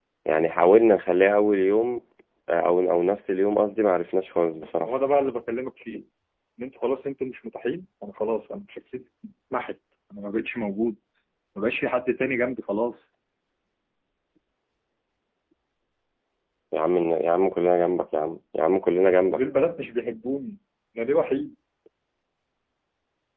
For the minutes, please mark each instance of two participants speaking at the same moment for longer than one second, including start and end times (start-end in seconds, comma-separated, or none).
none